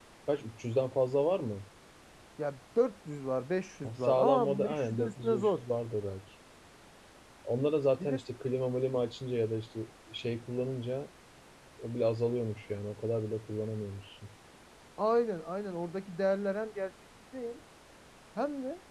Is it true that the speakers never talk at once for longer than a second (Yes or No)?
No